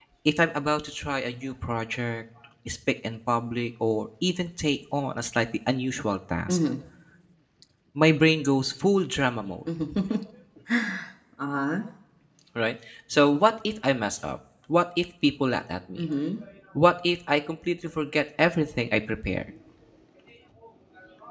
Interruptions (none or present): none